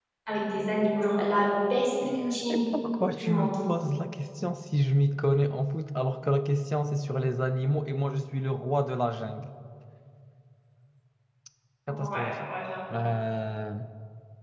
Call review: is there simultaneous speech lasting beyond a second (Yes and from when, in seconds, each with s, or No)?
No